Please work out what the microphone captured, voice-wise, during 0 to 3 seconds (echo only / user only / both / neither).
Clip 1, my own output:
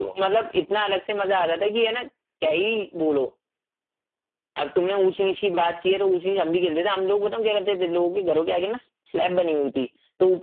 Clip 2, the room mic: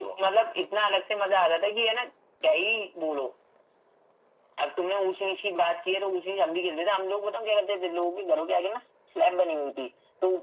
echo only